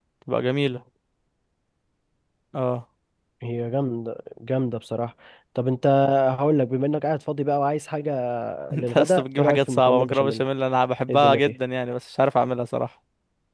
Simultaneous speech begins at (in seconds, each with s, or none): 8.8 s